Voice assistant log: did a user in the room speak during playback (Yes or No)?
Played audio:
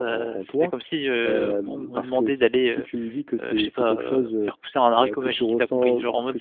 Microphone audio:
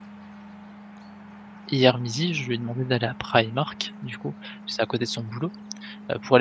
Yes